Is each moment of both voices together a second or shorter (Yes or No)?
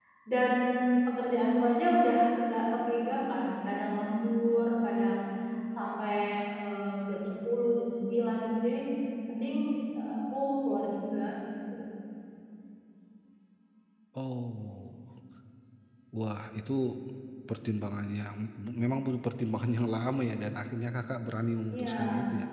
Yes